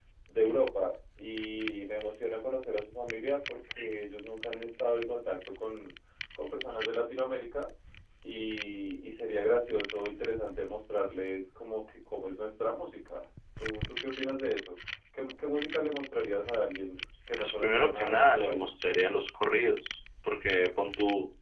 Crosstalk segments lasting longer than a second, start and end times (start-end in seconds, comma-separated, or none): 17.4-18.7